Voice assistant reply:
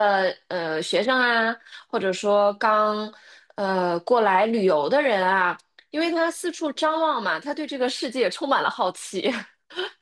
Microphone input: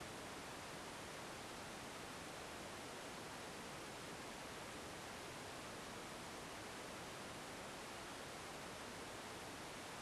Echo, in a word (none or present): none